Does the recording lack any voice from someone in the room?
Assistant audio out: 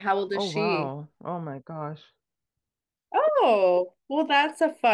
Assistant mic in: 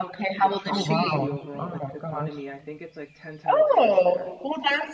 No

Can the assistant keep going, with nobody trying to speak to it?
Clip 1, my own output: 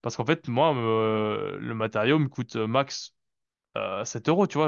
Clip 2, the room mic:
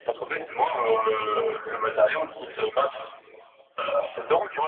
Yes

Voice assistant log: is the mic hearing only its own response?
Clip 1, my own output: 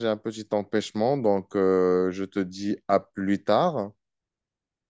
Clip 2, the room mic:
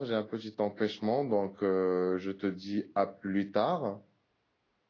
Yes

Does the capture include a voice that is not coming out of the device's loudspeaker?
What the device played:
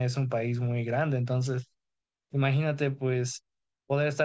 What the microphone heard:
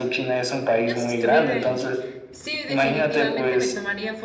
Yes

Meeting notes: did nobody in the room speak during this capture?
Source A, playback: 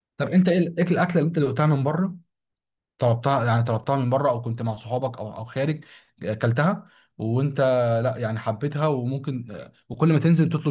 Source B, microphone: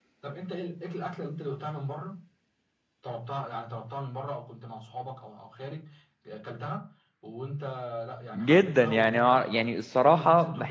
No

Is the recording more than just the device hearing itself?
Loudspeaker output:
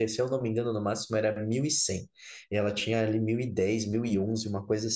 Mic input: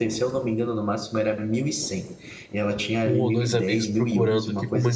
Yes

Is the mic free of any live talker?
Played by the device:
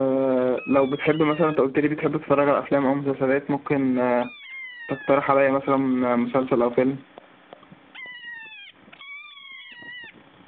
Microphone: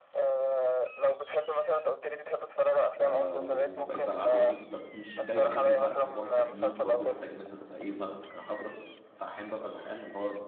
No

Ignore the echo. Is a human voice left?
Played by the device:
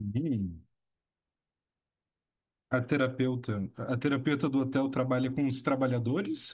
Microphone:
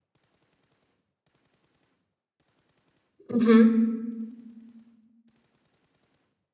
Yes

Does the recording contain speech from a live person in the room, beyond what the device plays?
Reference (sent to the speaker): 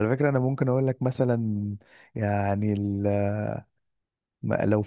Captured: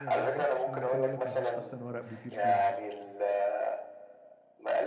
Yes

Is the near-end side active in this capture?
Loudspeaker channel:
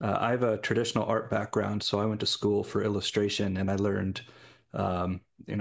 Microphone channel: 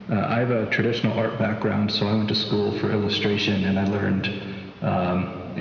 No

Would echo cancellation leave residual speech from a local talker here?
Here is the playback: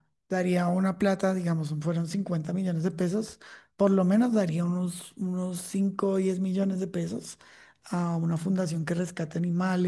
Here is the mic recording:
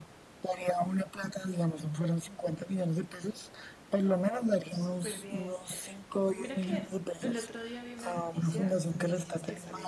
Yes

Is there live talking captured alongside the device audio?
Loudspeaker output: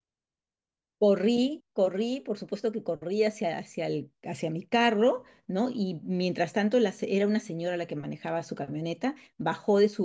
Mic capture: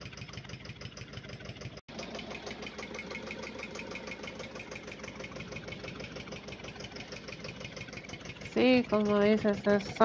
Yes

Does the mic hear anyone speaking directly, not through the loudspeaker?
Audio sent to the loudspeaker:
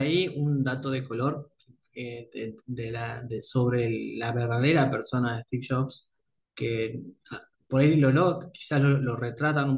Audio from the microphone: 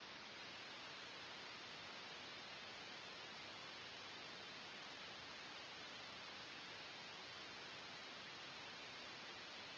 No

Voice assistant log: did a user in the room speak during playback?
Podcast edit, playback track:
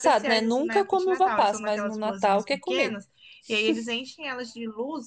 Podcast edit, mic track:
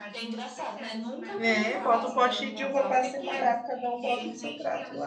Yes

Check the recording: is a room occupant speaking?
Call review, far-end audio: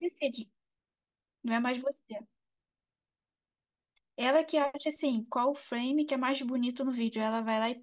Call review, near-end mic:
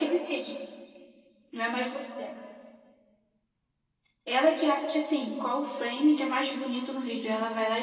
No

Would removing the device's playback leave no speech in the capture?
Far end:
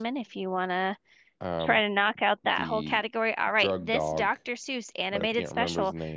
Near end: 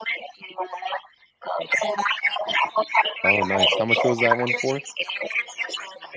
No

